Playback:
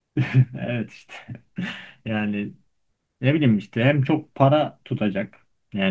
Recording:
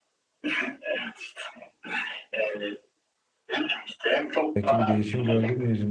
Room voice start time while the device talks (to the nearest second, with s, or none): 5 s